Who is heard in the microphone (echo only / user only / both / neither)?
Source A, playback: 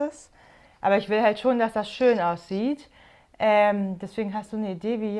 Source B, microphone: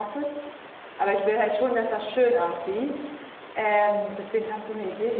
echo only